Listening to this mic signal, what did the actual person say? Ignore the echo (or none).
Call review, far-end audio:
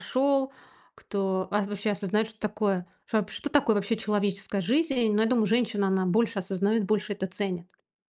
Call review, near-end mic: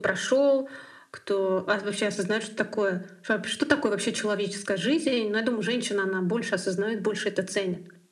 none